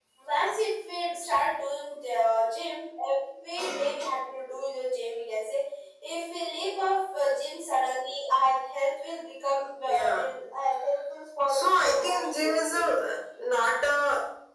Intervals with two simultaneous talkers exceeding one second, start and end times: 11.5-12.9

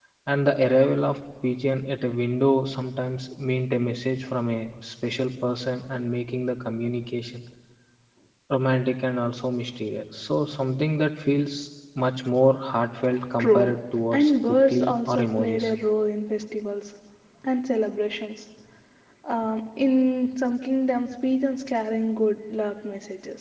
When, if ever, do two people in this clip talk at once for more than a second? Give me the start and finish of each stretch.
14.1-15.7

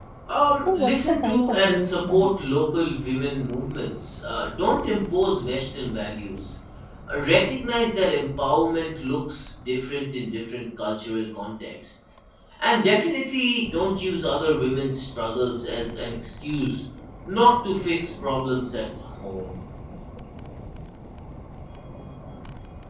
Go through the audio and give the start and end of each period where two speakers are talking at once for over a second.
0.6-2.4

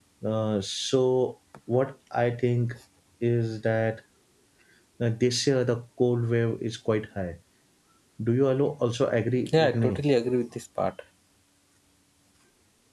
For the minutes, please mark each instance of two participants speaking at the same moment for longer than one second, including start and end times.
none

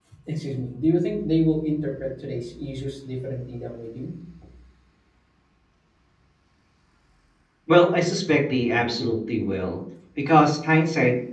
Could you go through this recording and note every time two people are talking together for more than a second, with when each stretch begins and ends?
none

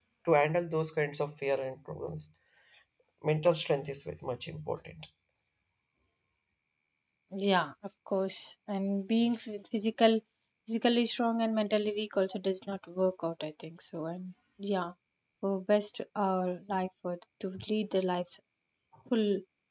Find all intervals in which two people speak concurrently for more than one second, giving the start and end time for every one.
none

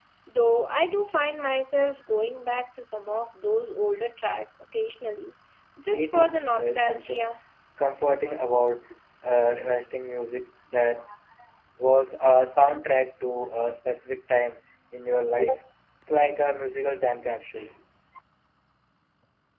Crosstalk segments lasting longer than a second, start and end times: 5.9-7.3

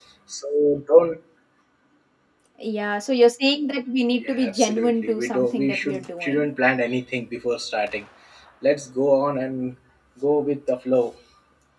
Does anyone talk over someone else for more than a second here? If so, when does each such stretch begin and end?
4.1-6.5

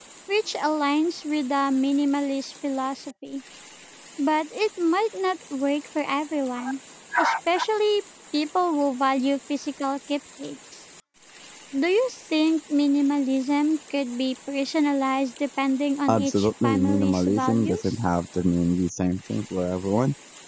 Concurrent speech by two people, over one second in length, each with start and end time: 16.1-17.9

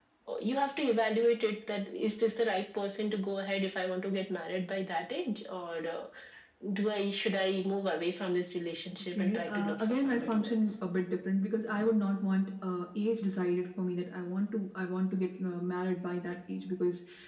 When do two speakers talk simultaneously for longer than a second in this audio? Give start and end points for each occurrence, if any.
9.2-10.7

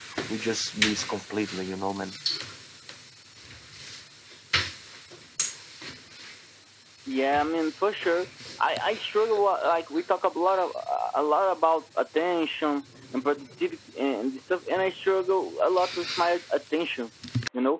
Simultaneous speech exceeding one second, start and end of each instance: none

